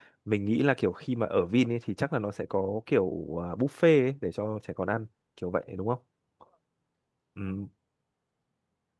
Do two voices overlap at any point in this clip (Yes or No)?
No